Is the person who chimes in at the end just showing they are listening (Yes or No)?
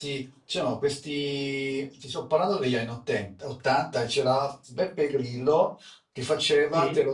Yes